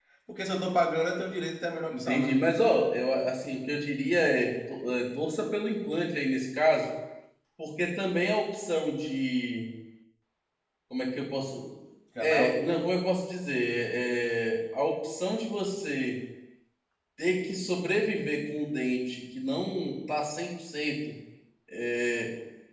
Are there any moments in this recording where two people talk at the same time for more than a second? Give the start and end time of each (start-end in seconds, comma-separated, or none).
none